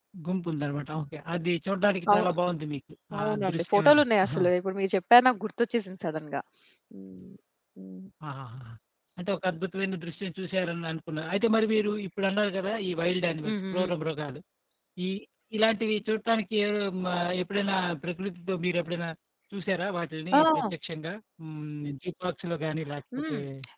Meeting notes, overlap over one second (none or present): present